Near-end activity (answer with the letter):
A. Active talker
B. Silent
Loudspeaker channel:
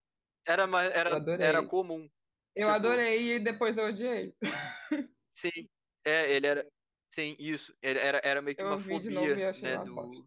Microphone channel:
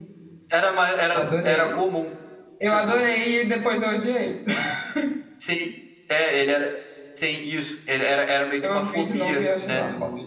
B